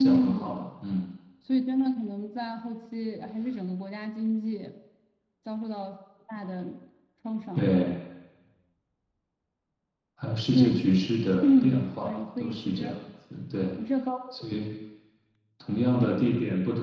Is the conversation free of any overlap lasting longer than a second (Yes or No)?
No